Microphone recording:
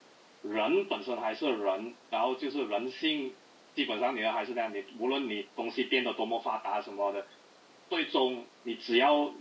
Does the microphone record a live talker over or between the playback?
Yes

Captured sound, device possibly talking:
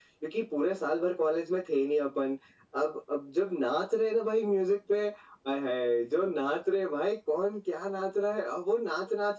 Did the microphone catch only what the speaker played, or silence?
Yes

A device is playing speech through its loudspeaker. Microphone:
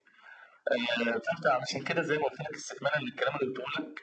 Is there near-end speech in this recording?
No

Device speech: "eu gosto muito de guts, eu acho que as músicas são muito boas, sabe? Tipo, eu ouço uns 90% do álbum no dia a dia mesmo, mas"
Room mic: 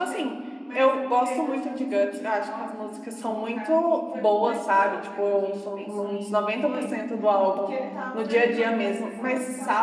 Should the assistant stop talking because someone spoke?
Yes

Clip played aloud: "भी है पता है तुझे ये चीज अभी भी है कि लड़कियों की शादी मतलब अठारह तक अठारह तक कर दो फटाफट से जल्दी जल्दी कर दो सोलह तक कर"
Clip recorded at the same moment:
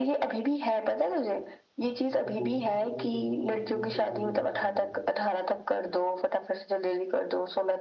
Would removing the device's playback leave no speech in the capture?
No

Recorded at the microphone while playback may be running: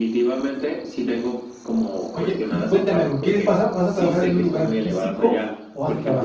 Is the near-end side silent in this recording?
No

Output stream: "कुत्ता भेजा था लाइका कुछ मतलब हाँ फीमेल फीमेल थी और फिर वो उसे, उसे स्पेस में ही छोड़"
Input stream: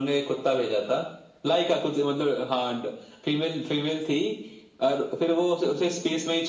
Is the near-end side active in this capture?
No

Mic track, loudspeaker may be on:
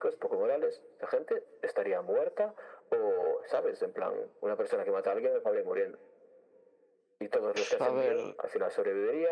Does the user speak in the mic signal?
Yes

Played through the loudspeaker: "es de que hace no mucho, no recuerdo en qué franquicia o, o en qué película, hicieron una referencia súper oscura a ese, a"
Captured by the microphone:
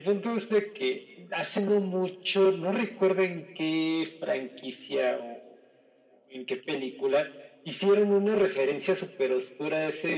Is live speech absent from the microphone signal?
Yes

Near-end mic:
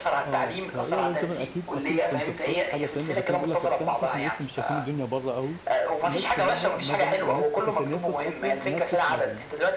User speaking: Yes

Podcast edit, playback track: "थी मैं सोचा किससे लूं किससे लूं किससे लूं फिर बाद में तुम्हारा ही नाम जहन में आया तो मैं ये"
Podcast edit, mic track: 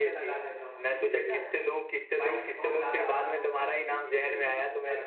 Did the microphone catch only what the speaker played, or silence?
No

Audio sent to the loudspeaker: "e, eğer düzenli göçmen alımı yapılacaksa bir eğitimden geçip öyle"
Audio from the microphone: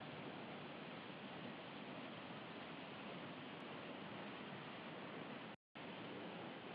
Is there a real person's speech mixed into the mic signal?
No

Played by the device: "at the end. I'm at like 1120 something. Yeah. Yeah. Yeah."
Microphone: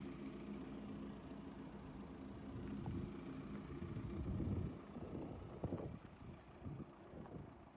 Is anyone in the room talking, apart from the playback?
No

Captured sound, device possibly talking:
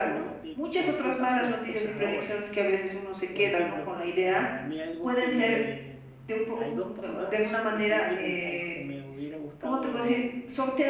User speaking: Yes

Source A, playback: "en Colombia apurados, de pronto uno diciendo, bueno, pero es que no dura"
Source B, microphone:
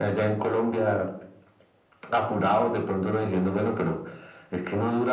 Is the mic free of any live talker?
Yes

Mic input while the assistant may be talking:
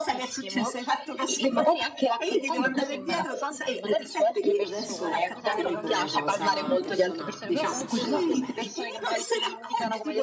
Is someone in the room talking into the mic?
Yes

